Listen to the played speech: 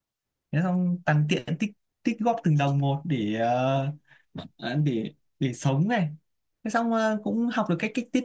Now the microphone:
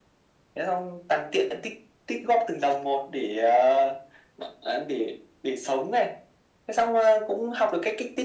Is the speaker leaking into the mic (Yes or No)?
Yes